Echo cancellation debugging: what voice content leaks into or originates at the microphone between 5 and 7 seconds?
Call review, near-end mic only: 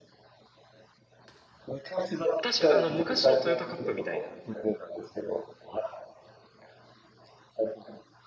echo only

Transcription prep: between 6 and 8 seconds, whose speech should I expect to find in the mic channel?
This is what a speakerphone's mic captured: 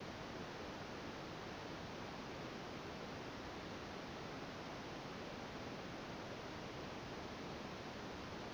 neither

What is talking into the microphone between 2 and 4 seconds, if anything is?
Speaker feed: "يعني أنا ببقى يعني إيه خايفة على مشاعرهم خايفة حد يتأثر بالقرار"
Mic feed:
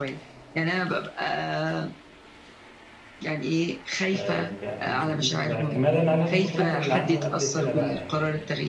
echo only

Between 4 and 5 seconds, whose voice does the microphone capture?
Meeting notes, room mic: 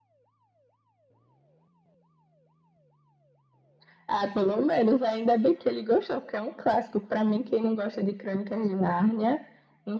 echo only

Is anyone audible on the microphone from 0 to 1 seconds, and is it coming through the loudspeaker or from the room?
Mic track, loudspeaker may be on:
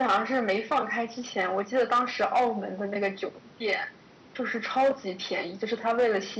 echo only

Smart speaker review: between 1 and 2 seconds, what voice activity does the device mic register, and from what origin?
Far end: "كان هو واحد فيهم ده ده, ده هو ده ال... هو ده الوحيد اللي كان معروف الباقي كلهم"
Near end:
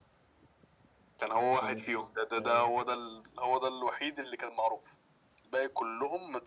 both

